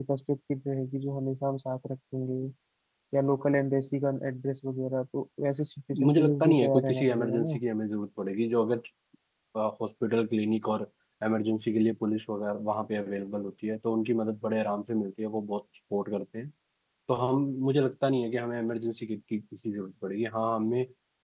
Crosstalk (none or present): present